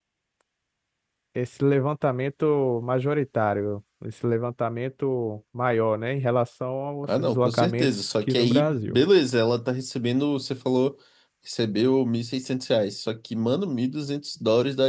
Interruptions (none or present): present